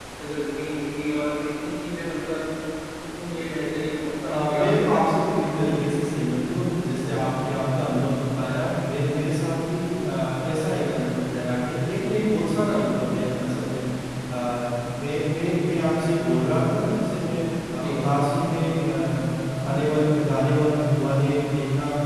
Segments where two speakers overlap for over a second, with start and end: 4.2-5.7

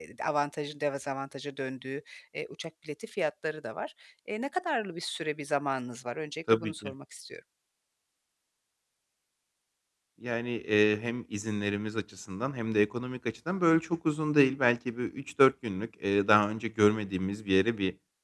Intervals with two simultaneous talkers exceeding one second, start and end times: none

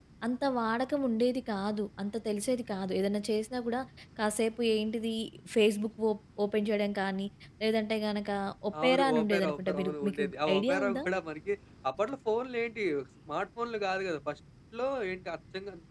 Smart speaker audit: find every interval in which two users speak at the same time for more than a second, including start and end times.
8.8-11.0

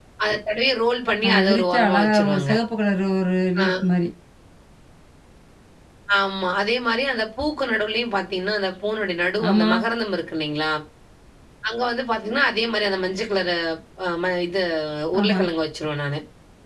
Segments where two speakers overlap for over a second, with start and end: 1.3-2.5

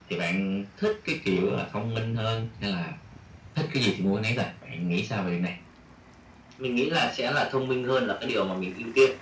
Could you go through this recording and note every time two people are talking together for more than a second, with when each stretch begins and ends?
none

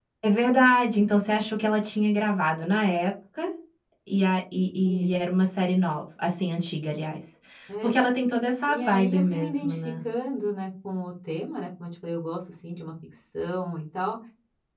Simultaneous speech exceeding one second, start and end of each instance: 8.7-9.9

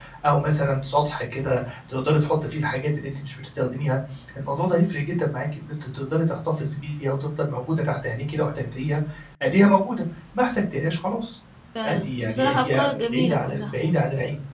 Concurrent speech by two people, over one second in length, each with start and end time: 11.8-13.7

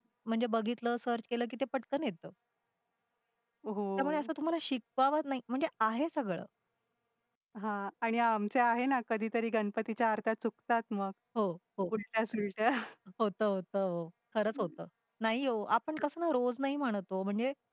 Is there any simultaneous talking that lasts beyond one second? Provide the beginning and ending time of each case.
none

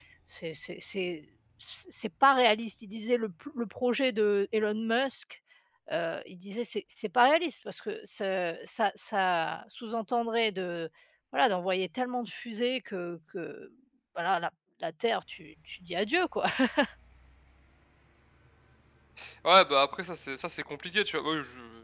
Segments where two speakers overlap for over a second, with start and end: none

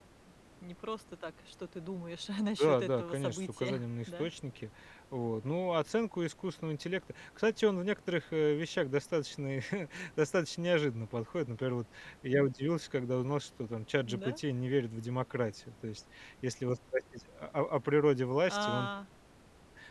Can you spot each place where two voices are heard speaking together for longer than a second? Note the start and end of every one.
2.6-4.3

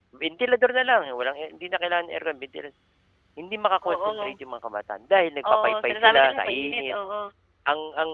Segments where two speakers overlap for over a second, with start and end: 5.6-6.9

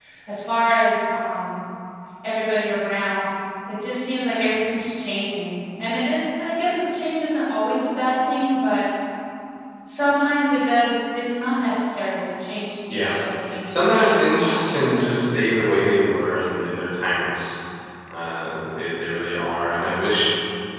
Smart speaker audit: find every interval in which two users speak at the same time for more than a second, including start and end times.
13.7-15.3

